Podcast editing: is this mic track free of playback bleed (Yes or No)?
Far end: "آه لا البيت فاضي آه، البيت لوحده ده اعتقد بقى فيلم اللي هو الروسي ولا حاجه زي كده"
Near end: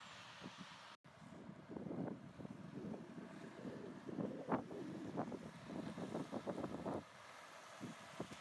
Yes